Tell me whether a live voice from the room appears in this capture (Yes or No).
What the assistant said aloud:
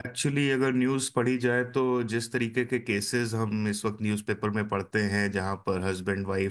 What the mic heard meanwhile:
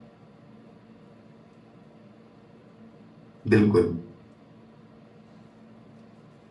Yes